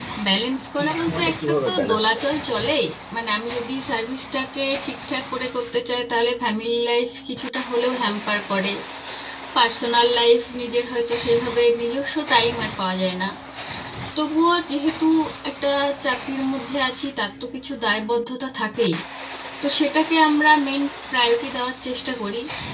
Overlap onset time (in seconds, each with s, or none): 0.8 s